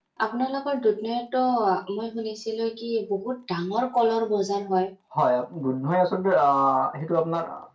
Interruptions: none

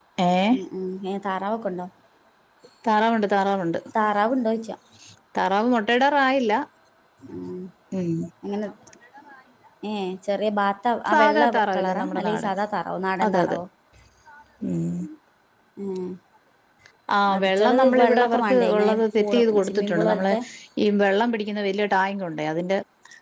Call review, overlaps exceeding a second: present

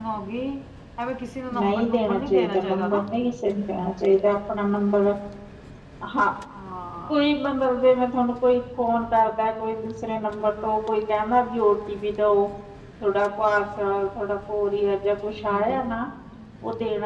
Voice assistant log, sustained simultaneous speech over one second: present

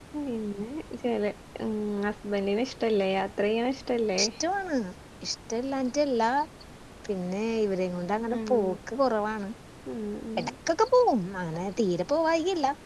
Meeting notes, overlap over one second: none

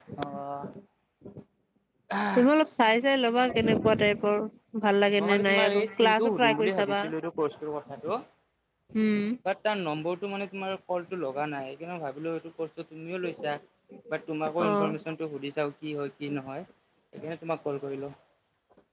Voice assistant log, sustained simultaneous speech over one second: present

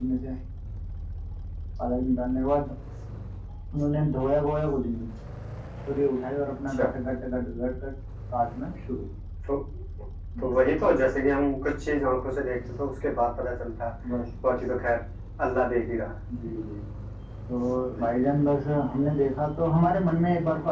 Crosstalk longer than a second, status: none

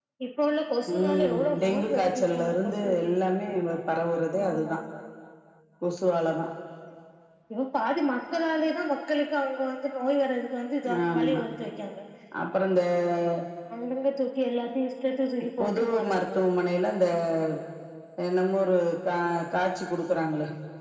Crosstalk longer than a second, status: present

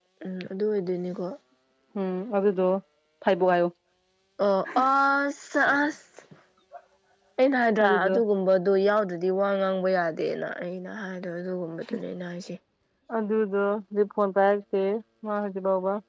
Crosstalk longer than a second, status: none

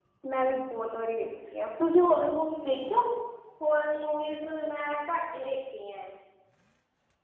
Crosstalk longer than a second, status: none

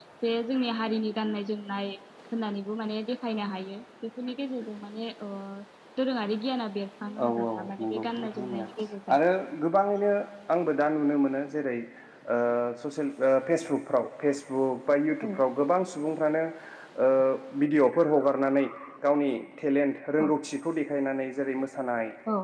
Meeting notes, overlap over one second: present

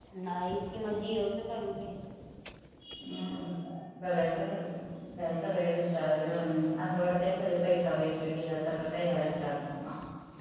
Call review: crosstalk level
none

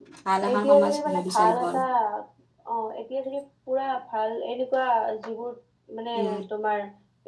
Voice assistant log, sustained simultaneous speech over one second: present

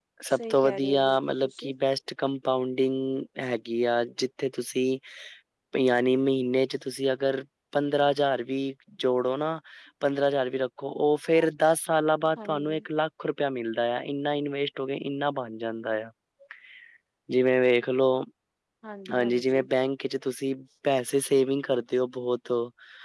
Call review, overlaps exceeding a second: present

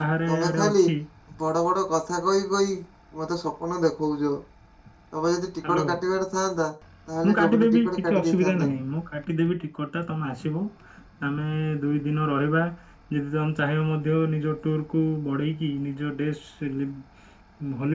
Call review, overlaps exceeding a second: present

